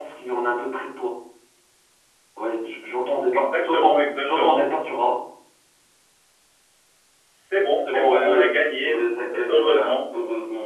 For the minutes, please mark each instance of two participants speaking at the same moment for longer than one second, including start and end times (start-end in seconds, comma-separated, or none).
3.3-4.6, 7.8-10.0